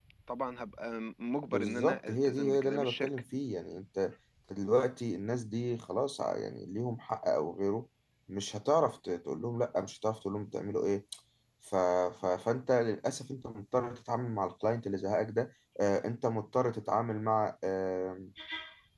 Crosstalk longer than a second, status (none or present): present